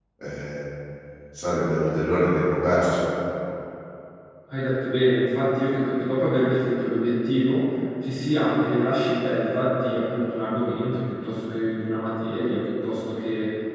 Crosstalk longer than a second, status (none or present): none